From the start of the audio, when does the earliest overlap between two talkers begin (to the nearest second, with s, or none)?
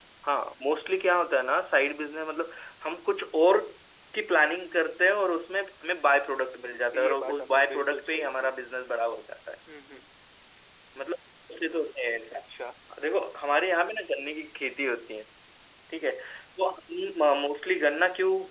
7 s